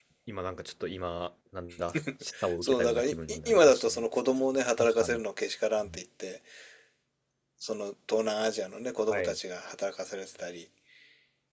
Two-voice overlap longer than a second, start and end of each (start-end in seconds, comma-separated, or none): 2.6-3.8